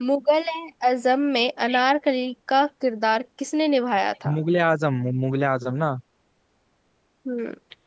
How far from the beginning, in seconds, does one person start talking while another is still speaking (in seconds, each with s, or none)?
none